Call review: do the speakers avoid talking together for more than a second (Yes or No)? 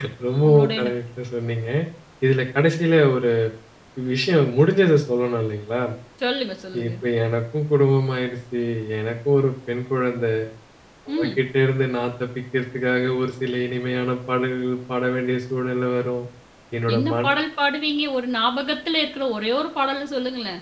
Yes